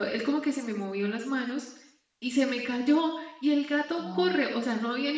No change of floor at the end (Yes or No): Yes